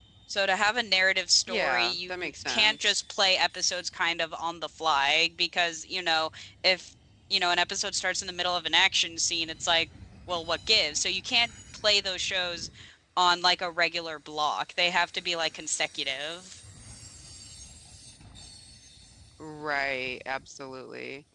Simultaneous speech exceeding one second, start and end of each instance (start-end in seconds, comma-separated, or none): 1.5-2.9